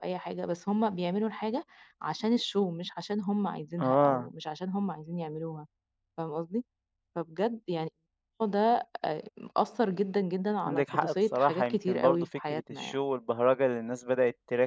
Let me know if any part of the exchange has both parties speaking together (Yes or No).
Yes